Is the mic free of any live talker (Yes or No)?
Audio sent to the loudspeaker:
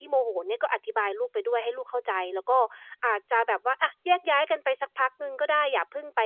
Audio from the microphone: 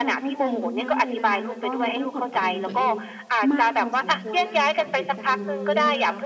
No